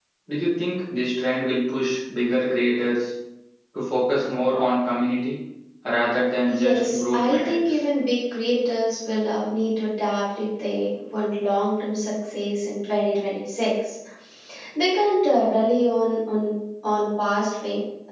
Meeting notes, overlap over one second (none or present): present